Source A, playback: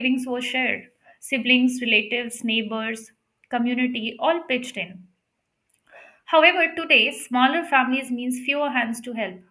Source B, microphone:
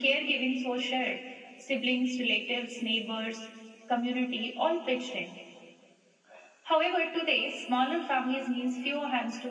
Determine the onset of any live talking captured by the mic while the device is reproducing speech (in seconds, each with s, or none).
none